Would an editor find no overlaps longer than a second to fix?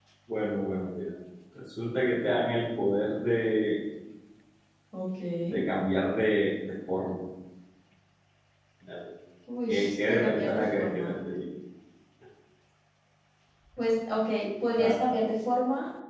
No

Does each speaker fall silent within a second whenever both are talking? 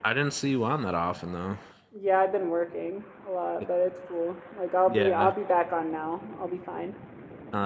Yes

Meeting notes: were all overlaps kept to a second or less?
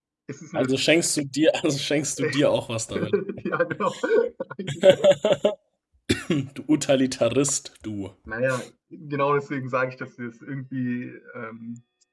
Yes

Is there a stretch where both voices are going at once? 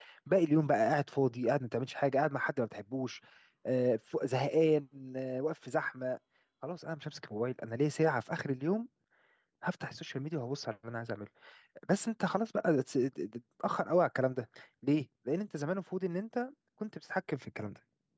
No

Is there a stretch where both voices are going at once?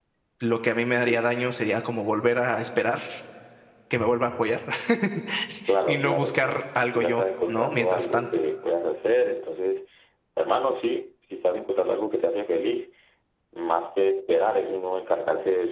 Yes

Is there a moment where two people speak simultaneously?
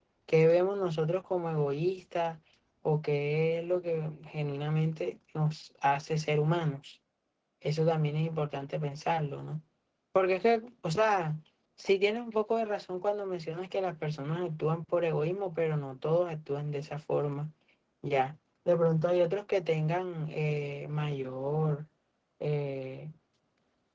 No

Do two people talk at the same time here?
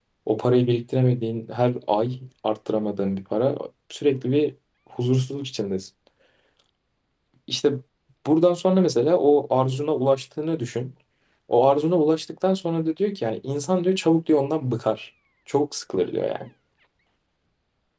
No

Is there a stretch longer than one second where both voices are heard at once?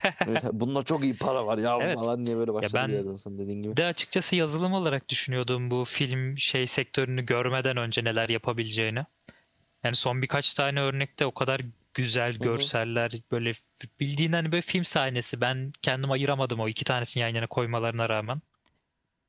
No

